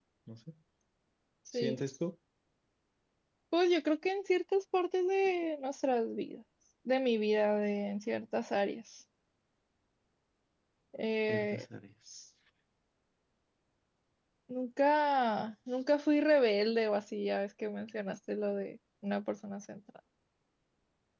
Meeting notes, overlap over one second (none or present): none